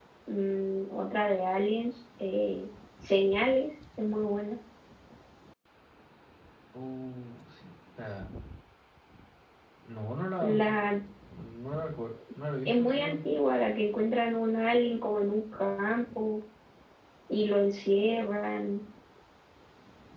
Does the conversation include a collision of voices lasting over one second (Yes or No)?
No